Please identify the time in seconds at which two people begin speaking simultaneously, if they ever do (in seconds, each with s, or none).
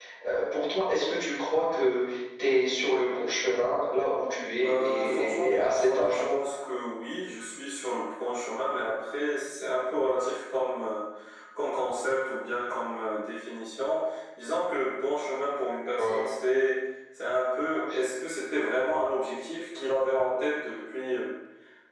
4.6 s